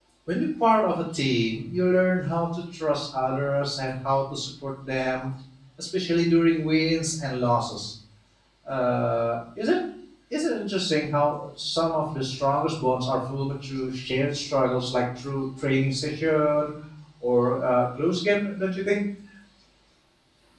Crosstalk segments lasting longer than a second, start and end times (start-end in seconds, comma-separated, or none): none